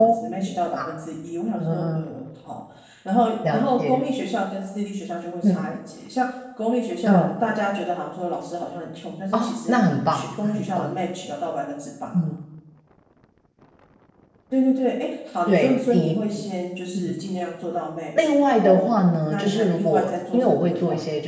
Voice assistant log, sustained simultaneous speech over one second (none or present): present